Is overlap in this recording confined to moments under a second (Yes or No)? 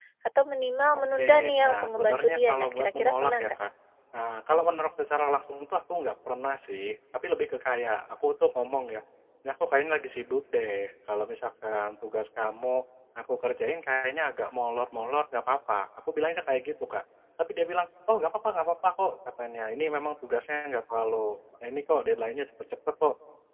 No